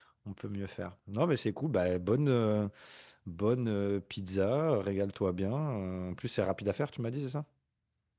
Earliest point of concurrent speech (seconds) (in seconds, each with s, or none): none